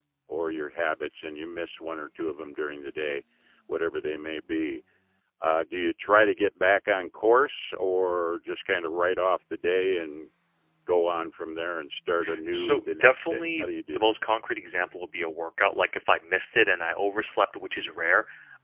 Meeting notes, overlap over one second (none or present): present